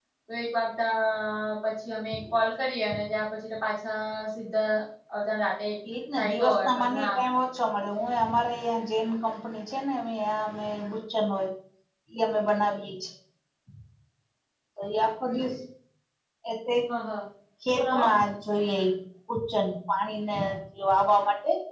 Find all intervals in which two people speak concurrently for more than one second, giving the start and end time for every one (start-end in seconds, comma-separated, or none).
6.2-7.5